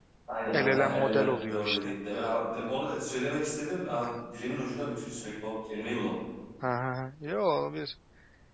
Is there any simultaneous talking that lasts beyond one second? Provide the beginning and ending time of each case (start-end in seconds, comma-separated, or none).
0.5-1.9